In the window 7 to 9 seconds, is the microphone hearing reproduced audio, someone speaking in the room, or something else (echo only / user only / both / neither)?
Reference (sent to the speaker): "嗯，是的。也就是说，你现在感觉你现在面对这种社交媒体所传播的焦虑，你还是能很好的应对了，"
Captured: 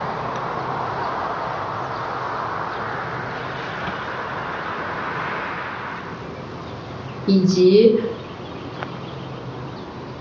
user only